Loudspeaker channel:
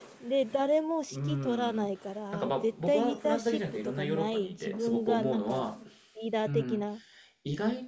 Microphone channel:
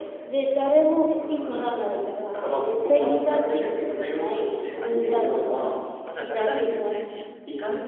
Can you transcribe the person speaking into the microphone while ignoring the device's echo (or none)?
そう、あれで、あ、じゃあ誰々先生に、